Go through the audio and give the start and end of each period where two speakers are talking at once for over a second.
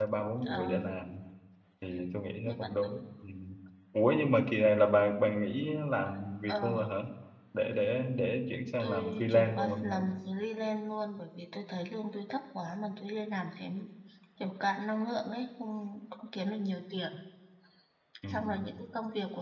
8.8-10.0

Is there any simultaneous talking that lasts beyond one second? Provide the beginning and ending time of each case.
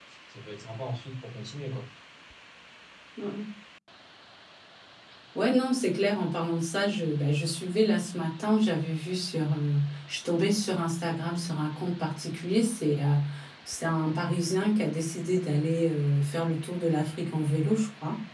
none

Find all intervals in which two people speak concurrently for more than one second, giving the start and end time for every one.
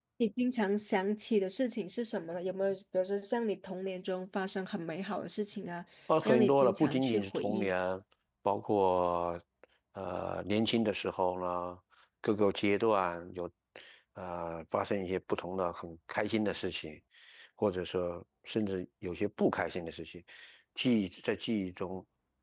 6.2-7.7

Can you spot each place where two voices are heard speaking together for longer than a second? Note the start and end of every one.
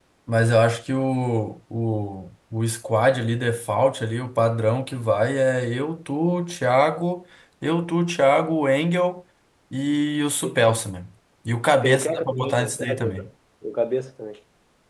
11.8-13.2

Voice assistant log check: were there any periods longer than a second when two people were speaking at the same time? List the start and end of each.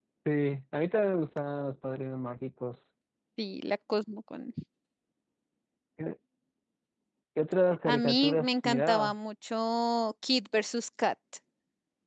7.9-9.1

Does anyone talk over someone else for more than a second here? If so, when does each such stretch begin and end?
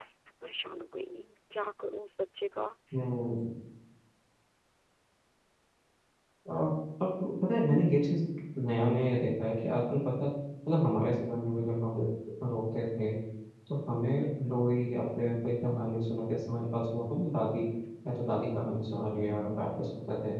none

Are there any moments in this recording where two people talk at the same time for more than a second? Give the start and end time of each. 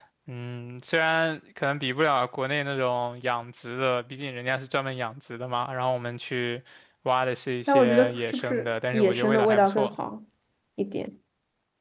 7.7-10.0

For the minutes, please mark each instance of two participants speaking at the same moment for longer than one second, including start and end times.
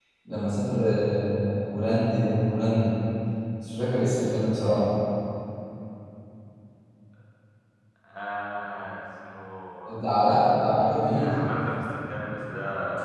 none

